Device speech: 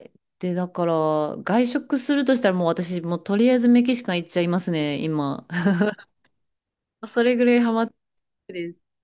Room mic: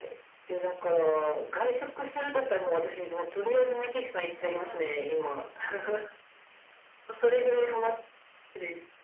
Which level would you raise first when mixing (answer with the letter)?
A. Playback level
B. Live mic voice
B